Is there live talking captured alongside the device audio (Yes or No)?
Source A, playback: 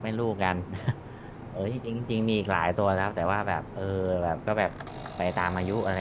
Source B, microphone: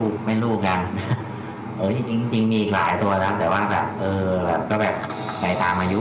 No